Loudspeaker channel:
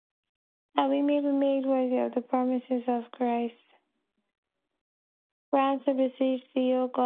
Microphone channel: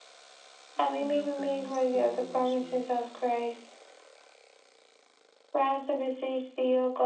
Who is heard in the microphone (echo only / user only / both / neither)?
both